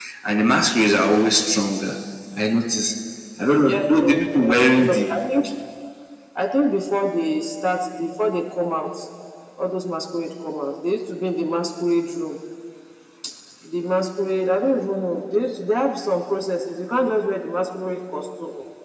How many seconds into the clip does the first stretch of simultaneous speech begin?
3.7 s

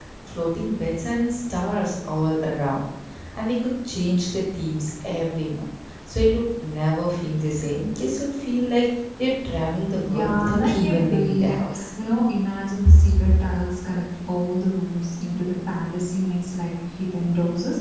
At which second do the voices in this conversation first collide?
10.1 s

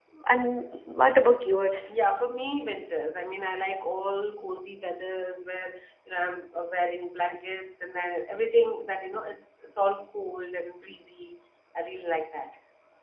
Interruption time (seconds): none

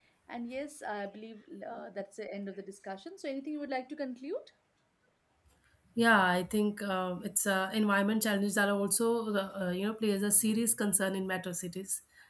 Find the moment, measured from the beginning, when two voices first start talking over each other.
none

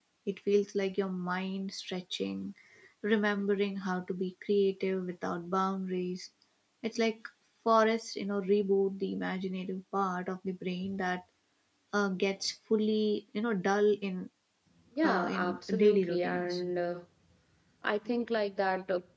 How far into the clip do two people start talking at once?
15.0 s

